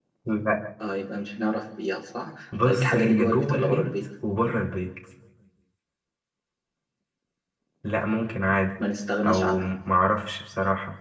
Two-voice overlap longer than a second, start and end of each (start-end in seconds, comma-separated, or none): 2.6-4.0